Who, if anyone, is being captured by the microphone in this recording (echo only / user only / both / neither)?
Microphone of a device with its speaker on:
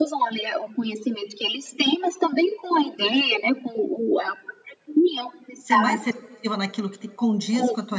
both